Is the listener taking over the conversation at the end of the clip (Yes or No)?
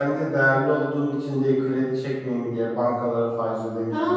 Yes